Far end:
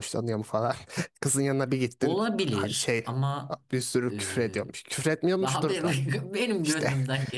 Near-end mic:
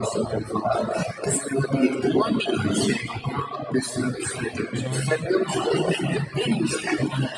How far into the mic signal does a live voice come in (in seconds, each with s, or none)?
4.7 s